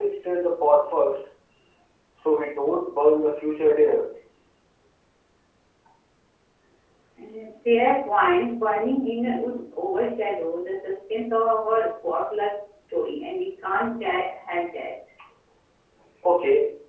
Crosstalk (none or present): none